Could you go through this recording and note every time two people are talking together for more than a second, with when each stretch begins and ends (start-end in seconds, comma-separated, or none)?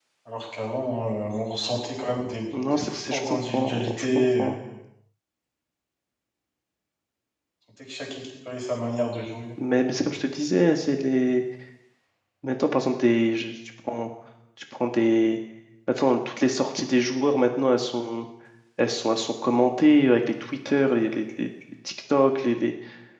2.8-4.5